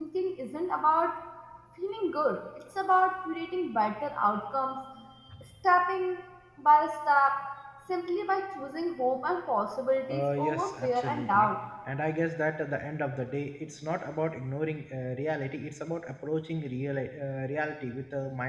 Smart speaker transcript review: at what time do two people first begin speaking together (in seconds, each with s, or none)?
10.1 s